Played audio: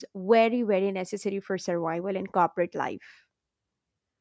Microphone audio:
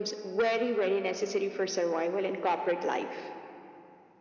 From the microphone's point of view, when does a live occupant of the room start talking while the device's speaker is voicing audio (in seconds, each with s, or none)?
none